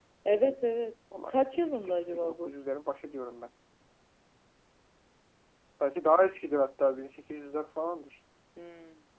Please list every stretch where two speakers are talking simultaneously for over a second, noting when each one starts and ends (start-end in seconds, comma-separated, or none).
1.3-2.5